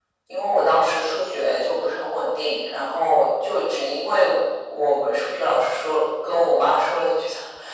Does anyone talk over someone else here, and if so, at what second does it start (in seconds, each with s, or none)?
none